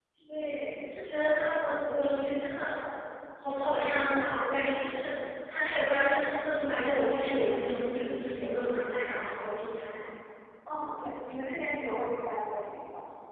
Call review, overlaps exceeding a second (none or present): none